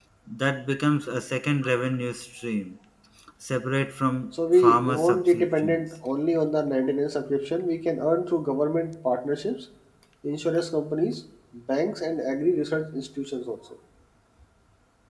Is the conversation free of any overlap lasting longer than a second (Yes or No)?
No